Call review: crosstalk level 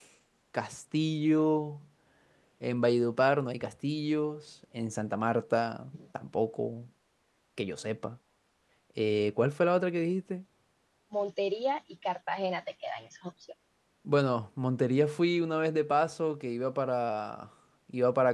none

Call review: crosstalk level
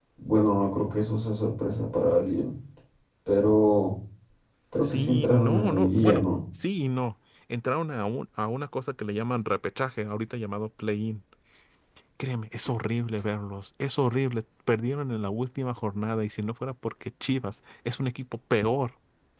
present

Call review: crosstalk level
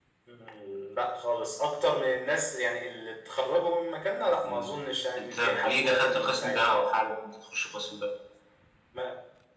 present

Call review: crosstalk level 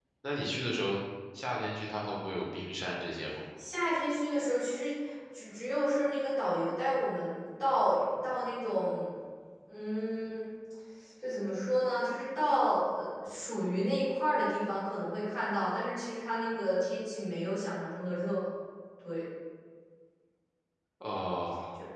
none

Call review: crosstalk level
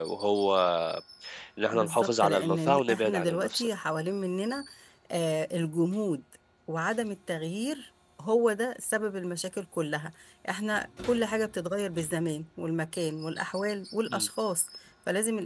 present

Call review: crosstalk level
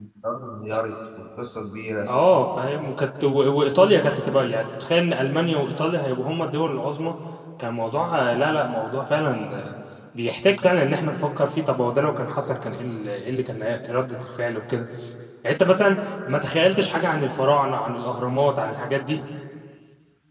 none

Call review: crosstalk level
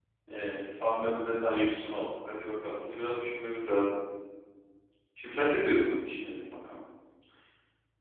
none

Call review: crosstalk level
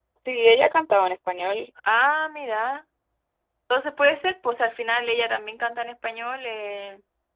none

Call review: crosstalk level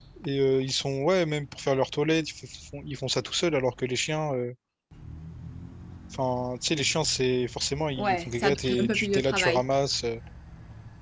present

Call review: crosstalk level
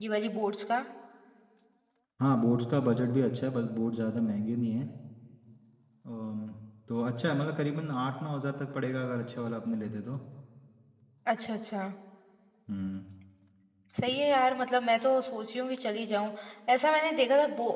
none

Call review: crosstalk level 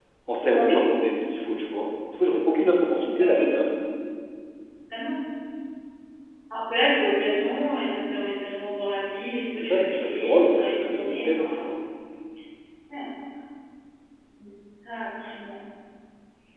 present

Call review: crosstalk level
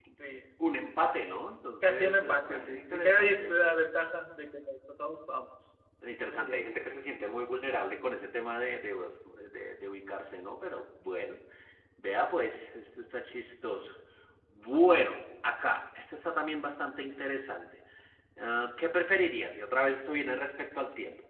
present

